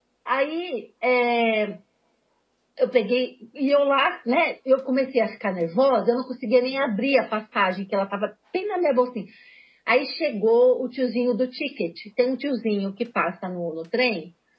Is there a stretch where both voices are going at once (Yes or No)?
No